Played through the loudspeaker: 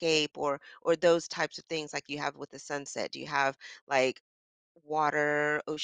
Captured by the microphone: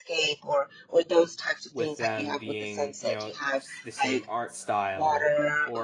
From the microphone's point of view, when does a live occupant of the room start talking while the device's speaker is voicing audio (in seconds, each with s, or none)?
1.7 s